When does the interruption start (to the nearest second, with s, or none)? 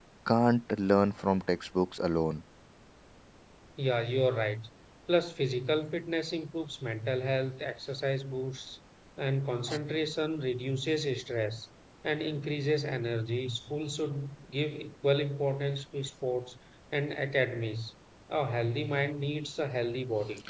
none